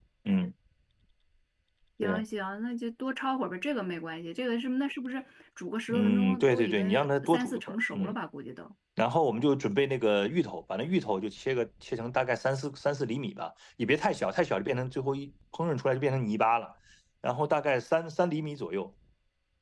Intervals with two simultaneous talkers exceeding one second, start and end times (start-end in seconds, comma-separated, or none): 5.9-8.2